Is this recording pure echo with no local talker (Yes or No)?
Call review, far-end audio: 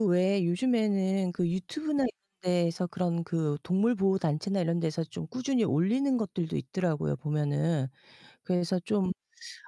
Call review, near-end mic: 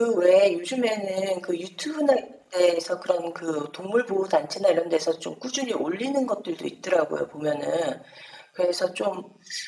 Yes